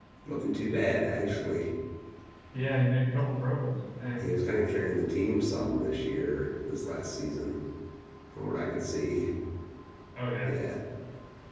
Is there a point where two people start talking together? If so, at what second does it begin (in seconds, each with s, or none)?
none